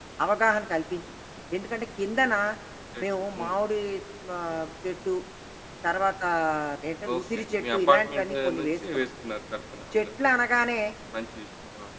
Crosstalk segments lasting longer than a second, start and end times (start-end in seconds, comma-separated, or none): 7.1-9.0